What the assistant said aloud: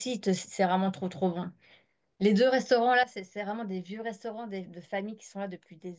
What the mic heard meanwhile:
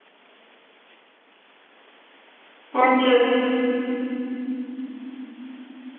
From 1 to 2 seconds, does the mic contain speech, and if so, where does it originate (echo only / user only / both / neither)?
neither